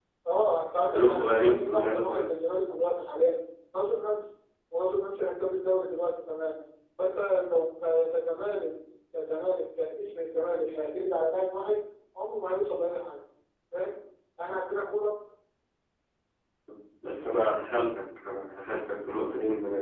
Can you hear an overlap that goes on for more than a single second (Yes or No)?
Yes